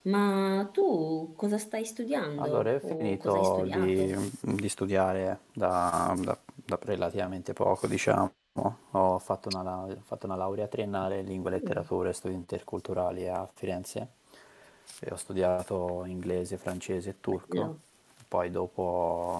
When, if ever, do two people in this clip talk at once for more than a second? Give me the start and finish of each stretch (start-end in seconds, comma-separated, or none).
2.4-4.2